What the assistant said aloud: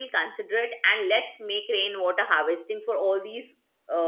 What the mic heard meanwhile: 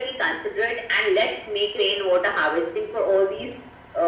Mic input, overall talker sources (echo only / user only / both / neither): echo only